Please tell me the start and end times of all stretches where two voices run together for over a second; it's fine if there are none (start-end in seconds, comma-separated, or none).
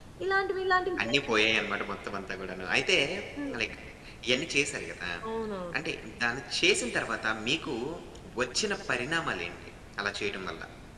none